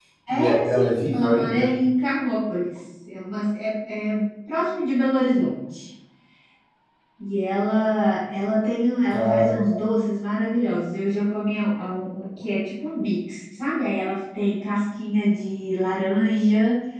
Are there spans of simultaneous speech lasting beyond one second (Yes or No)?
Yes